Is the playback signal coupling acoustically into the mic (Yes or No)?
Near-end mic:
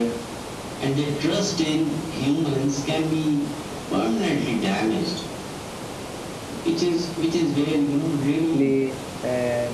Yes